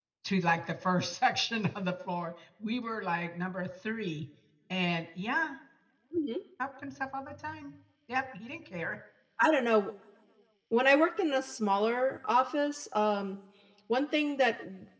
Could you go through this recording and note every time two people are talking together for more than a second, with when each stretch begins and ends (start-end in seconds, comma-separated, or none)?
none